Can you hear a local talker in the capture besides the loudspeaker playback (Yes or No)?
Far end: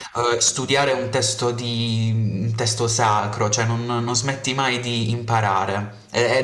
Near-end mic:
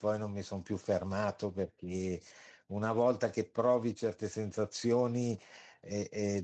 Yes